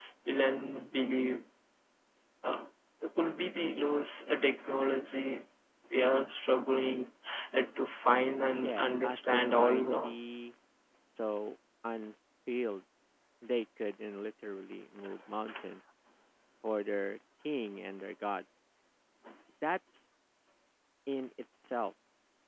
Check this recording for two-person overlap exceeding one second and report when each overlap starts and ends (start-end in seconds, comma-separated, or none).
8.6-10.2